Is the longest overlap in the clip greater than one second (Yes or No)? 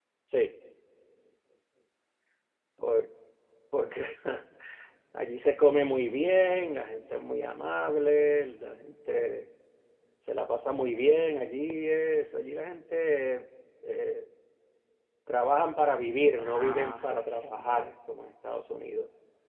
Yes